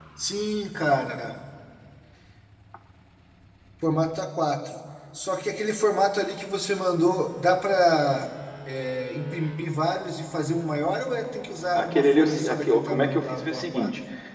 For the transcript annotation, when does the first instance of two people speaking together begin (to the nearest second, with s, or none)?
12 s